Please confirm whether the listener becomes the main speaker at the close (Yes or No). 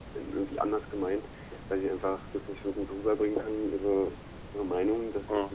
No